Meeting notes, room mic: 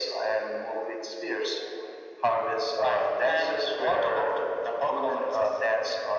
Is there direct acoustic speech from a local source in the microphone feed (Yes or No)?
No